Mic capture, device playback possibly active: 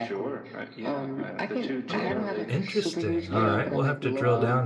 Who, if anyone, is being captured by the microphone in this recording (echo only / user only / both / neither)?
both